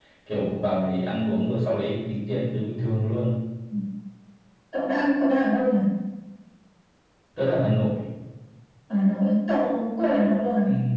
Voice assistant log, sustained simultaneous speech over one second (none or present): none